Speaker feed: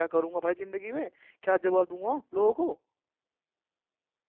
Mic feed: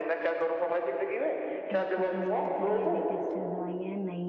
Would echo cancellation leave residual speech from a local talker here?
Yes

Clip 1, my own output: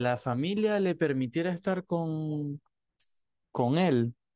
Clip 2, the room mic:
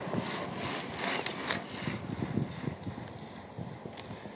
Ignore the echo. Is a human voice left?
No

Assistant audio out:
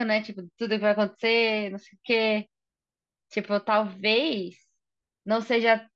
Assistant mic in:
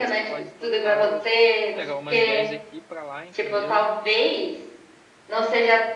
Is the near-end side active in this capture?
Yes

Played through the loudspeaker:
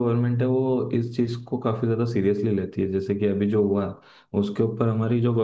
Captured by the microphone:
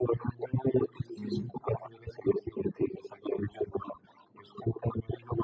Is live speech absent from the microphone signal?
No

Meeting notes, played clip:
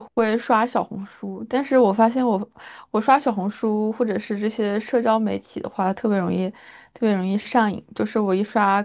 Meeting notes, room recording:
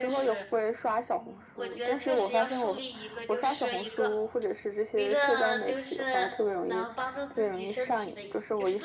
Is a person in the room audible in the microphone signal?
Yes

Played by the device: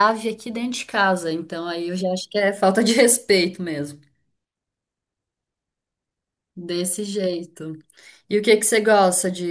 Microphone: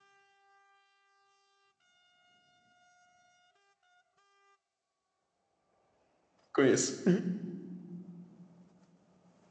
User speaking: Yes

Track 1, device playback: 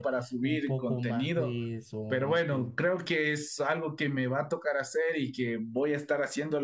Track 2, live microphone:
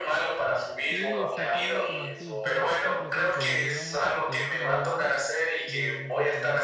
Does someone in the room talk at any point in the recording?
Yes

